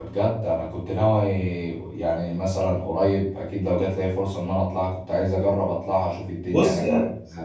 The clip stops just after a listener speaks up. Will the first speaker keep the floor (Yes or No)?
No